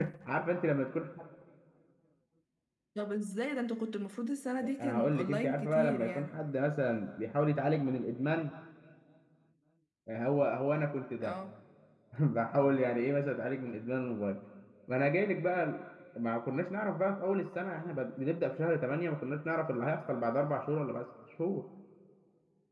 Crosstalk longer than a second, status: present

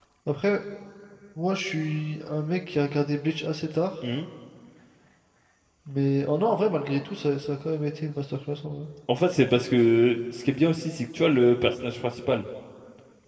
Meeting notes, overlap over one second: none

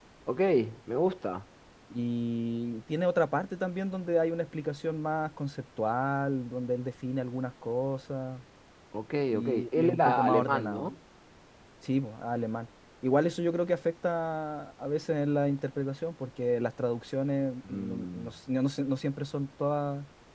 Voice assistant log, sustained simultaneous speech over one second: present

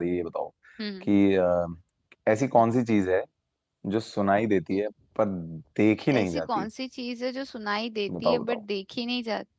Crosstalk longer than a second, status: none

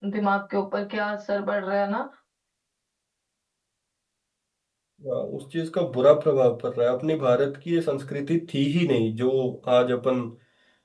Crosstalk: none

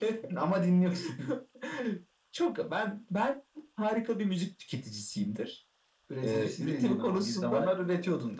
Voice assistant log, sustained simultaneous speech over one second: present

